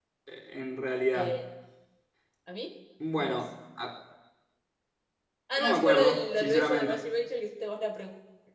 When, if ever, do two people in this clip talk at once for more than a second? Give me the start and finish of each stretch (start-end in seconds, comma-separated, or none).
5.6-7.1